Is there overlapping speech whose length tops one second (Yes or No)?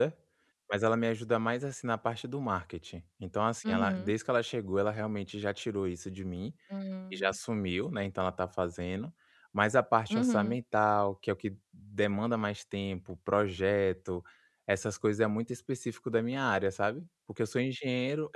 No